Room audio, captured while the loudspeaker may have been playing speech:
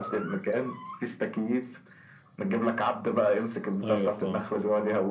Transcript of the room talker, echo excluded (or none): ايوه فاهم